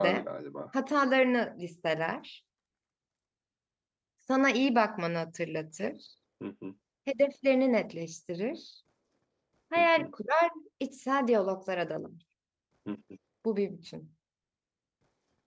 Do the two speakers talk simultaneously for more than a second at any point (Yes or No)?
No